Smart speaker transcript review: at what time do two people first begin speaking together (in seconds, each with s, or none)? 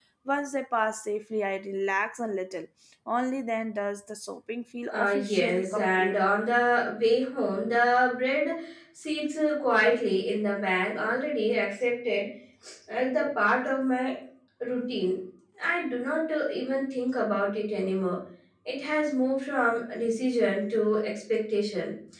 4.9 s